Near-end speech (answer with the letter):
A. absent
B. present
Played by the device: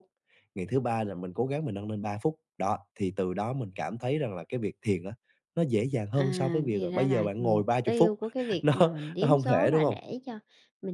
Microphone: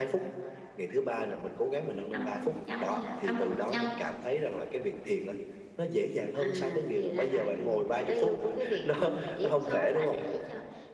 B